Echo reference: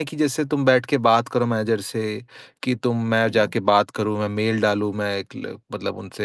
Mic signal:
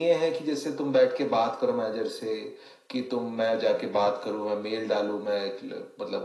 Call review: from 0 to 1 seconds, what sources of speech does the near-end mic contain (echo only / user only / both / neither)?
echo only